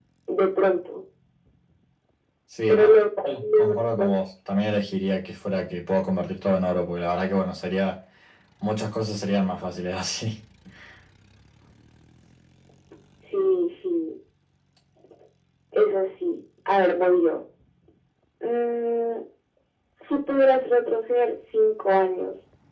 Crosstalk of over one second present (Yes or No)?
Yes